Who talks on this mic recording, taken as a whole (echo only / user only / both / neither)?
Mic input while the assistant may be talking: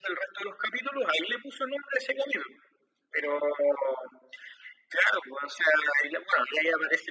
echo only